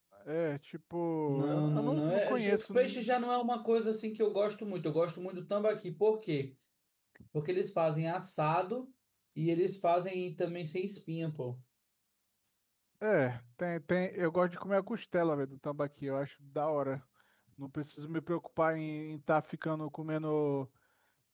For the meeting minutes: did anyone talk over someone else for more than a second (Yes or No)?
Yes